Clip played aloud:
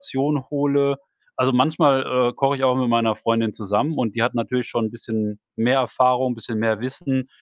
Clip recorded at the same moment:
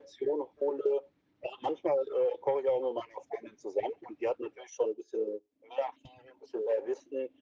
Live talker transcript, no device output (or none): none